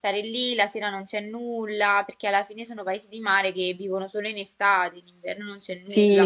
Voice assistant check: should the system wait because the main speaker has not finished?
No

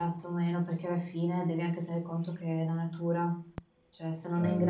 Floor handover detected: No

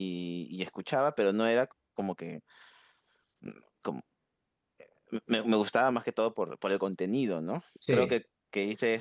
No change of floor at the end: Yes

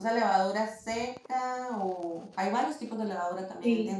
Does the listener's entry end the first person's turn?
Yes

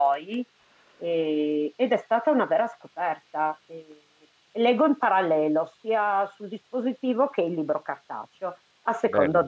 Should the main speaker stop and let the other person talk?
No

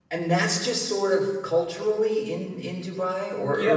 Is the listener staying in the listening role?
No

